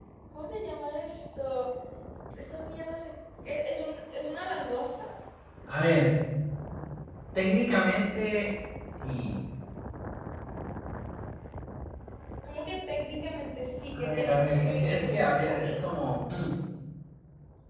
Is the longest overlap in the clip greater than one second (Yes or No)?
Yes